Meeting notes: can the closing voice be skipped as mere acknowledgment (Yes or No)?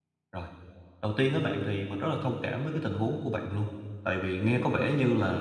Yes